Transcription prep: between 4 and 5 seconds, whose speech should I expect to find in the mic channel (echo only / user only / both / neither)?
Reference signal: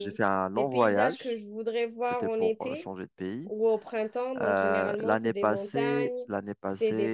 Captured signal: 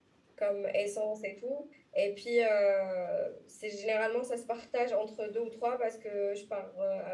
user only